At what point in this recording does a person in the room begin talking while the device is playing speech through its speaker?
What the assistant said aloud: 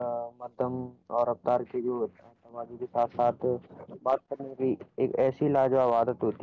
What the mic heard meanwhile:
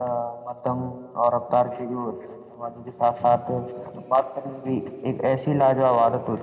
none

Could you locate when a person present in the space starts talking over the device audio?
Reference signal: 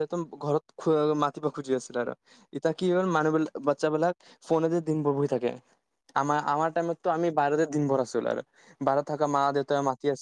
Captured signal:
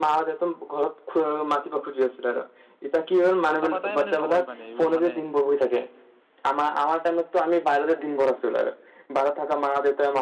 3 s

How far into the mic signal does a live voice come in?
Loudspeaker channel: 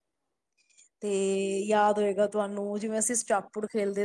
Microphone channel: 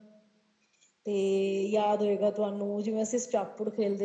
none

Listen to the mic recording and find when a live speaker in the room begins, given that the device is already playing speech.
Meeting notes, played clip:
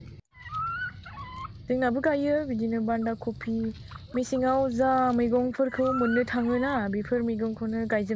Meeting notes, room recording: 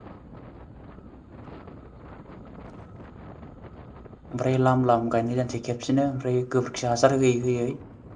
4 s

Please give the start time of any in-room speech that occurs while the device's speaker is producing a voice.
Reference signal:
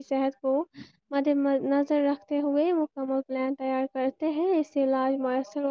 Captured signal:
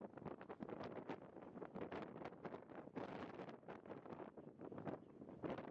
none

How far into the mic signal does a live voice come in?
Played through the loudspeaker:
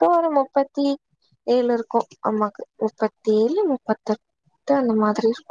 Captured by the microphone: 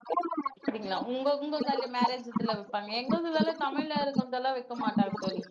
0 s

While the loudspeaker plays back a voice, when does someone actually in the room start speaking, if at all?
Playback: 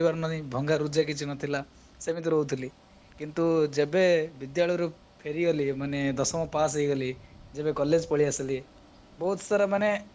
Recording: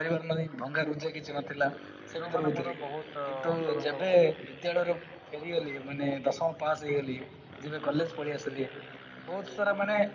2 s

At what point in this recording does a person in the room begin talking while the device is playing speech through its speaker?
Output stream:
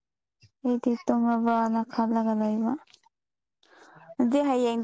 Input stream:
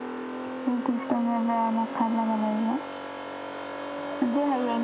none

